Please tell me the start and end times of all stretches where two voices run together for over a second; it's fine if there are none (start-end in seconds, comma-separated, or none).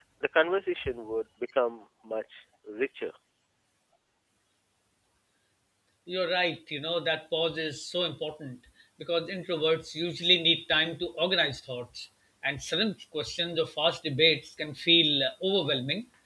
none